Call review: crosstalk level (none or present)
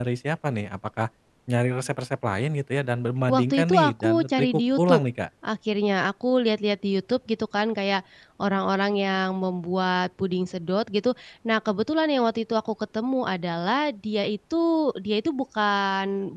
present